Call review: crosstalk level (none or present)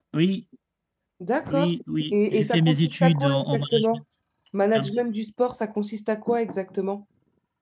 present